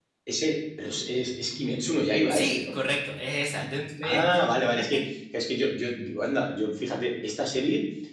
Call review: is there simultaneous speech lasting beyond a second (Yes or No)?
No